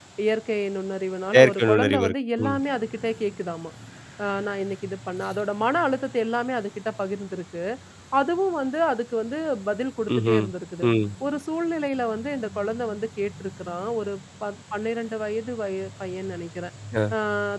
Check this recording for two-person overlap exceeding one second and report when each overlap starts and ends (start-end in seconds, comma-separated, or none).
1.3-2.6